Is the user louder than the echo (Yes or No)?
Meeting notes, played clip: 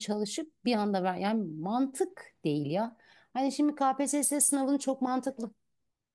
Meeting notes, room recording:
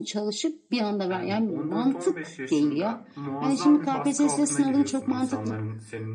No